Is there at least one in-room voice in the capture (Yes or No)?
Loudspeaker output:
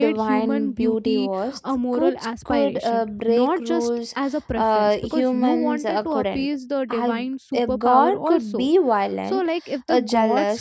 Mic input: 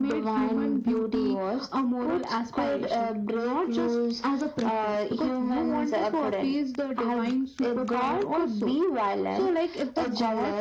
No